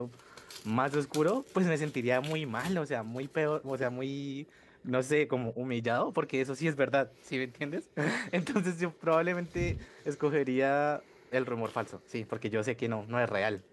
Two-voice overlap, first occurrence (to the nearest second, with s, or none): none